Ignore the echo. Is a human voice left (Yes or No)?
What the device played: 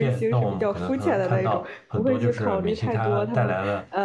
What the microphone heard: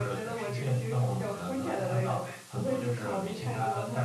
No